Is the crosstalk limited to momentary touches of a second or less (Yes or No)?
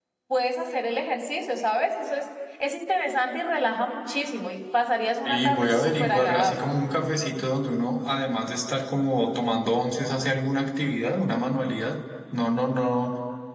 No